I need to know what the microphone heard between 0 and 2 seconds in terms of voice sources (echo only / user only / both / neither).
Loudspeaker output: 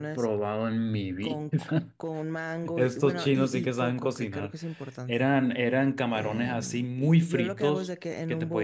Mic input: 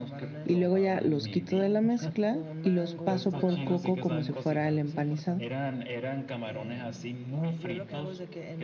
both